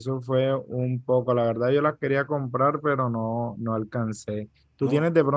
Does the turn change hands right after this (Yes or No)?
No